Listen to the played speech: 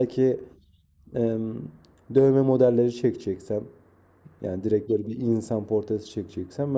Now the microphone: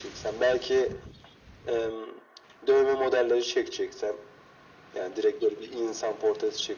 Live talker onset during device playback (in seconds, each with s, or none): none